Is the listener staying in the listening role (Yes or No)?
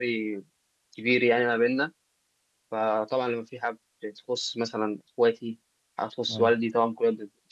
Yes